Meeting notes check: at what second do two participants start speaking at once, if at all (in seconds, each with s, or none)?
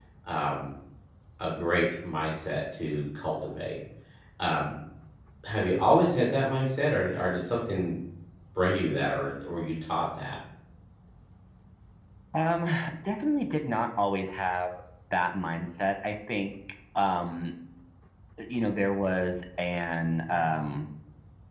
none